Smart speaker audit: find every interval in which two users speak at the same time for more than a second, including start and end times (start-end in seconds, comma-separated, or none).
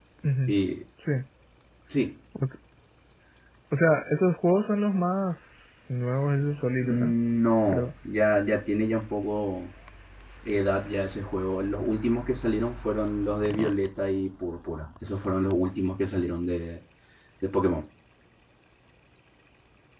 none